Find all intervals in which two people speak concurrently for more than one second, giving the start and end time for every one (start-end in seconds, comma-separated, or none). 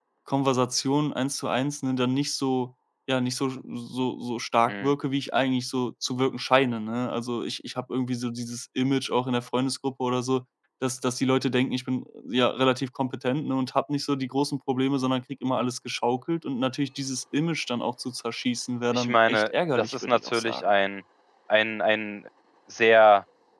18.9-20.6